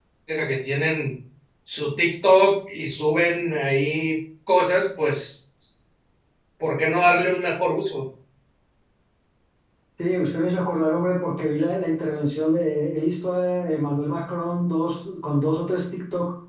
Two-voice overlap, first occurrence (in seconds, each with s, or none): none